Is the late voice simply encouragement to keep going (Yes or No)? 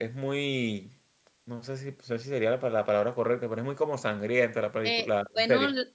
No